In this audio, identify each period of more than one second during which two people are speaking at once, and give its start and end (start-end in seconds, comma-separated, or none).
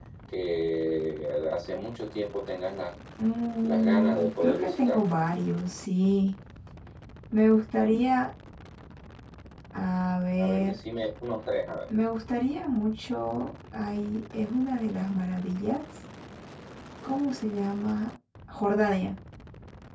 3.6-5.0